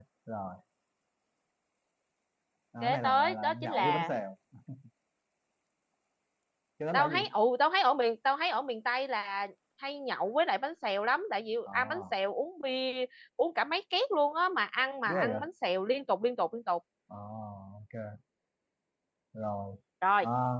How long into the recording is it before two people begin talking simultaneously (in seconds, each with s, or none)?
2.8 s